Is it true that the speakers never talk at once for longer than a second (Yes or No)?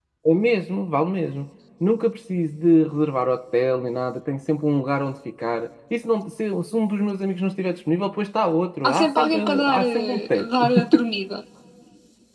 No